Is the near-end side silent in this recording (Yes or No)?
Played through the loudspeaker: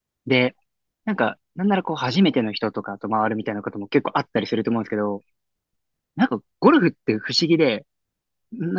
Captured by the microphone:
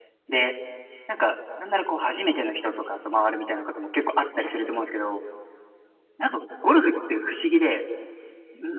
Yes